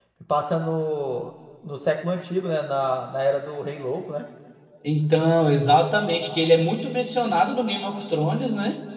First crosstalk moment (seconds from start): none

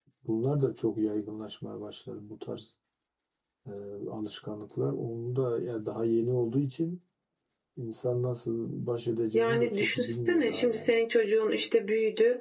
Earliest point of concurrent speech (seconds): 9.3 s

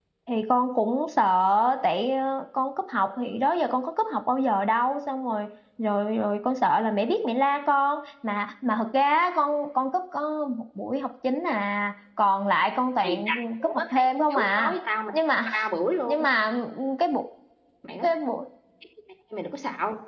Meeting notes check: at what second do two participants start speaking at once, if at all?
13.0 s

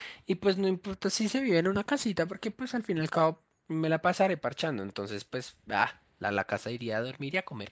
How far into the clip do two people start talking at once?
none

